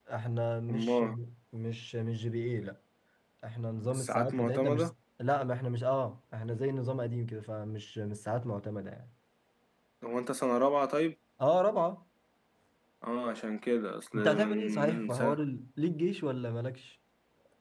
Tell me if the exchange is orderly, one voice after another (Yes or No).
No